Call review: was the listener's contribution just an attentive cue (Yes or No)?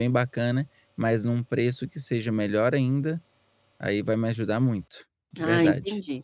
No